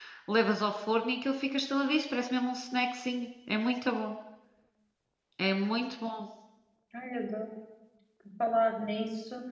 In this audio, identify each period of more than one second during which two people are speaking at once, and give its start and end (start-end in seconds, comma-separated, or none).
none